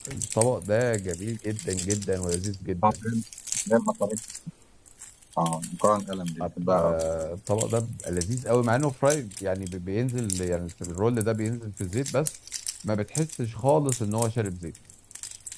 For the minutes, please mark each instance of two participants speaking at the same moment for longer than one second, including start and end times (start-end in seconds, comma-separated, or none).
none